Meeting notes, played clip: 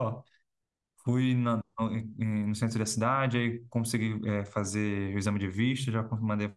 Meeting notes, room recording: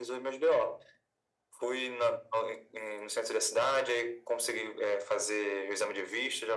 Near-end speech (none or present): none